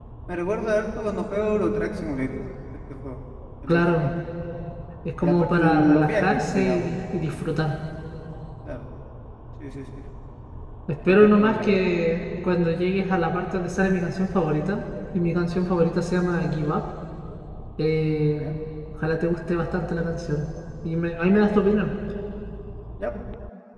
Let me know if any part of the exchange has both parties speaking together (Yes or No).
Yes